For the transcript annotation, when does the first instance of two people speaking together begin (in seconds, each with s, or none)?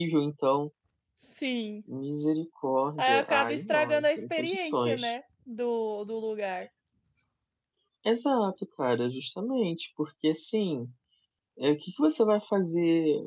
3.0 s